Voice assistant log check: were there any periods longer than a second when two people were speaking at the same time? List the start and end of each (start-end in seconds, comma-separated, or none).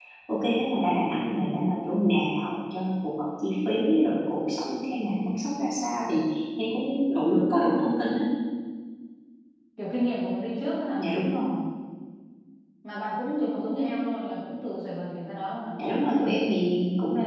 none